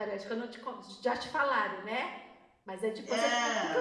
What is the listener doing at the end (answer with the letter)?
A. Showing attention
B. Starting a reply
A